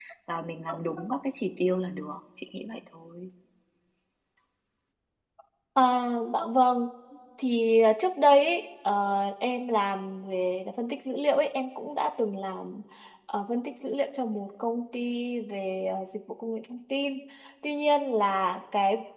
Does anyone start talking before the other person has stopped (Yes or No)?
No